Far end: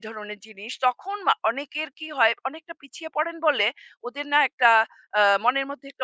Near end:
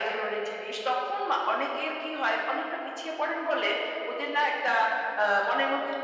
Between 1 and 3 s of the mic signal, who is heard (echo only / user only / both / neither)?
echo only